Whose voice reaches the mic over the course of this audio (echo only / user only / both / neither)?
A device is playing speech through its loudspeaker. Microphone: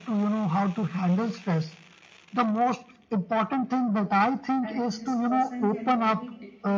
both